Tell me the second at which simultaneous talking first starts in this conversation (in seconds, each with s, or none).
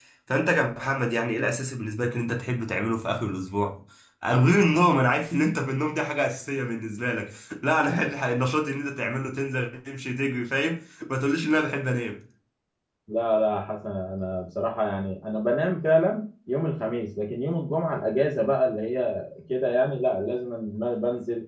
none